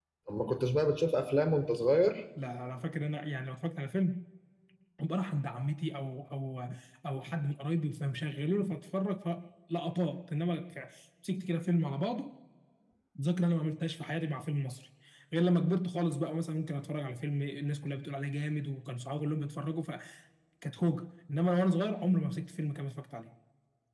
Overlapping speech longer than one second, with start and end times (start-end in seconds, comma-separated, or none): none